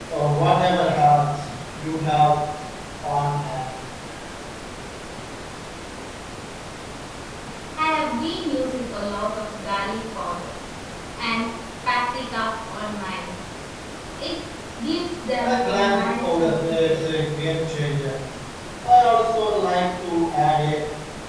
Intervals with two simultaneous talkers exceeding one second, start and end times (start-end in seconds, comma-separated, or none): 15.4-17.1